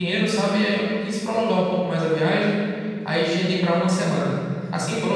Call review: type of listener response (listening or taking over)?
listening